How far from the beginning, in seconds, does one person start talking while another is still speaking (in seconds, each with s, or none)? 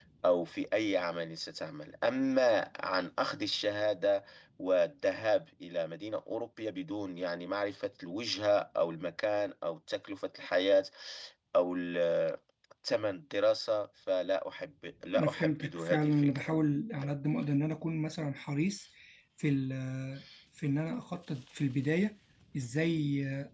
15.1 s